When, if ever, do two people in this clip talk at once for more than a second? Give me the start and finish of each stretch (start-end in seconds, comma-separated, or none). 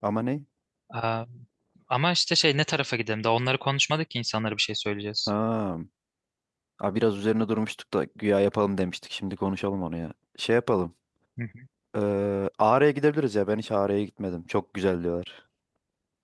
none